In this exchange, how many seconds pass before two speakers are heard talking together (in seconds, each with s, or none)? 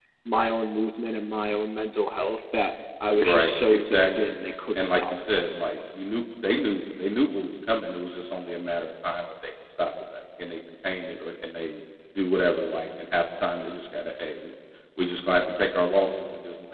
3.1 s